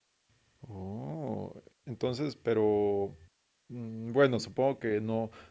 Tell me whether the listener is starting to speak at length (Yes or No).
No